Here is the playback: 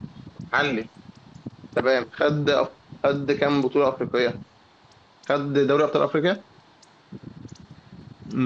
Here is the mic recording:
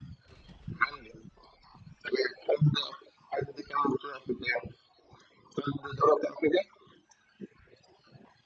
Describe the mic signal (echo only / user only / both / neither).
echo only